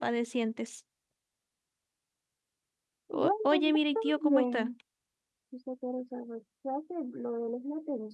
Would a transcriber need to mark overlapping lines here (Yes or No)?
Yes